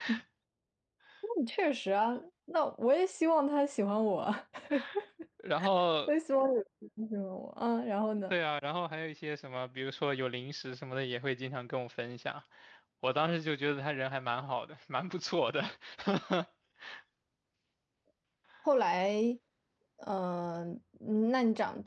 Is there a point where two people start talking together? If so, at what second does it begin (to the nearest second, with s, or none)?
none